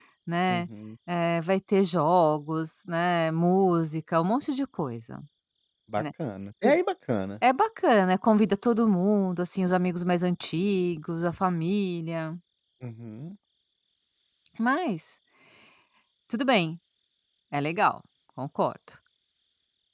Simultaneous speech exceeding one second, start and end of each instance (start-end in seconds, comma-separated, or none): none